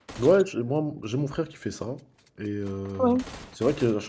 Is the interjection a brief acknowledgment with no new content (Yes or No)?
Yes